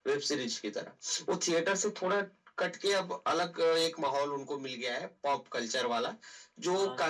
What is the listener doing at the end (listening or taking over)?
listening